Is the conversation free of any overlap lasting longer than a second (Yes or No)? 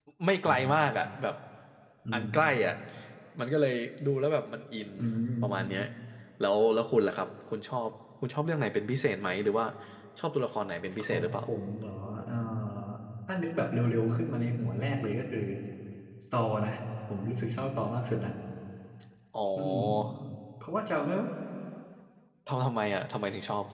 Yes